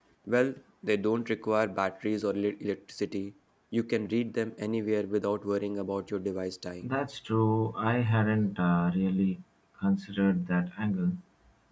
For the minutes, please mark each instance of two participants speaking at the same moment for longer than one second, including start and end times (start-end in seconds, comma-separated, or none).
none